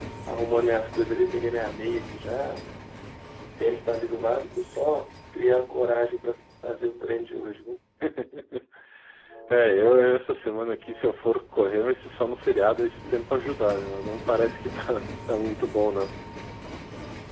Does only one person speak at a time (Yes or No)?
Yes